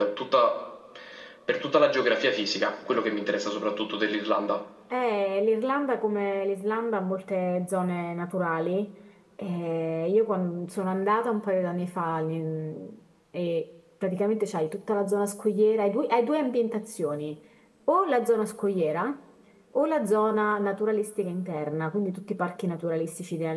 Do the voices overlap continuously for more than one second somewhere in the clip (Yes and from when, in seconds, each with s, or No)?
No